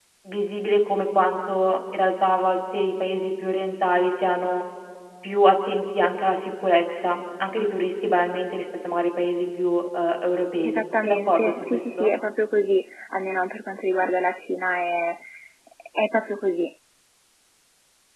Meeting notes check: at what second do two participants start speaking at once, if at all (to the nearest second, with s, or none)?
11 s